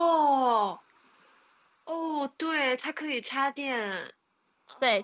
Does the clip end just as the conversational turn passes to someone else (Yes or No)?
Yes